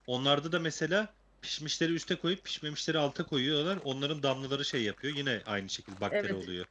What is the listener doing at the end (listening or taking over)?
taking over